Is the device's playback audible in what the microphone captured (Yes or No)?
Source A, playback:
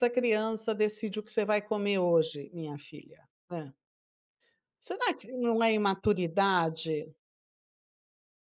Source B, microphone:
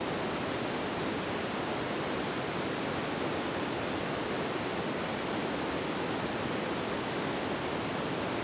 No